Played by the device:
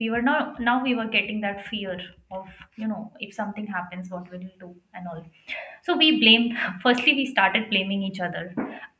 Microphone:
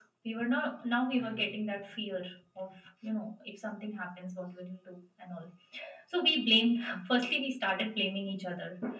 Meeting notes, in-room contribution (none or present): present